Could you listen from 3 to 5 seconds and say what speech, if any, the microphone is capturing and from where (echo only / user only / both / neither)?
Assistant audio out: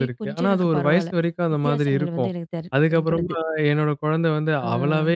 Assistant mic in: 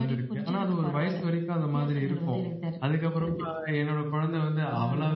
echo only